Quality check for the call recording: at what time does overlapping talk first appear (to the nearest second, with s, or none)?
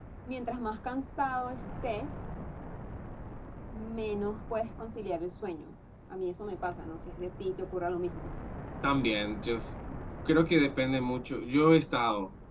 none